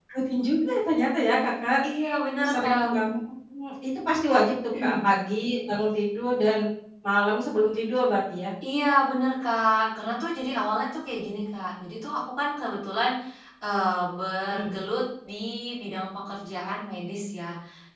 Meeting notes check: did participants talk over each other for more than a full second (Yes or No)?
No